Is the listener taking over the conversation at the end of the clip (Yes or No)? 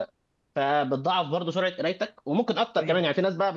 No